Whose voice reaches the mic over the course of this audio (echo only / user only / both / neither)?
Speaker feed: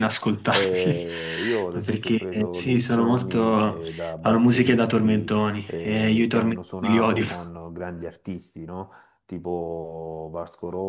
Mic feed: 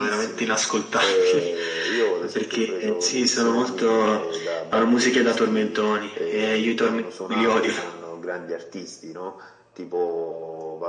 echo only